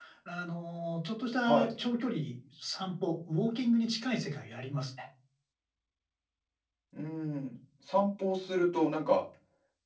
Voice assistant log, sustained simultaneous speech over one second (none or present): none